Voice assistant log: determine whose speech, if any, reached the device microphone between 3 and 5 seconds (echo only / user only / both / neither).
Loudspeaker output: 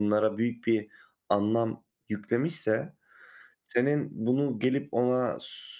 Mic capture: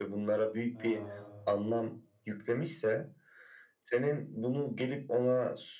echo only